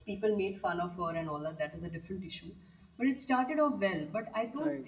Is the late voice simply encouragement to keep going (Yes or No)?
Yes